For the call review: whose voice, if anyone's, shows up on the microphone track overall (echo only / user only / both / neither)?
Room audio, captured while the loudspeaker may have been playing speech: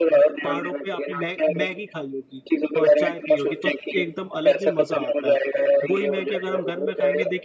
both